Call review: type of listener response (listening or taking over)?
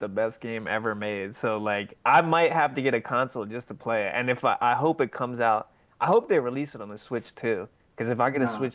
taking over